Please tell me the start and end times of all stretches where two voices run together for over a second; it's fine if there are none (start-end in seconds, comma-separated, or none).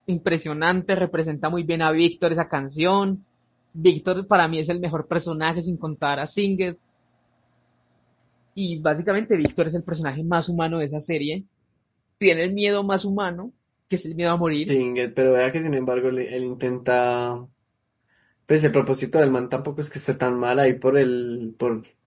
none